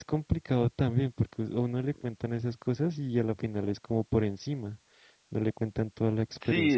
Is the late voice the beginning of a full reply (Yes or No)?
Yes